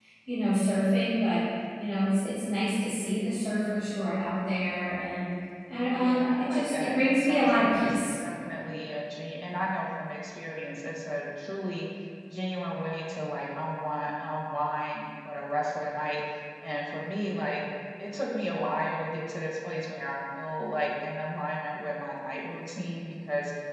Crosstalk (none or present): present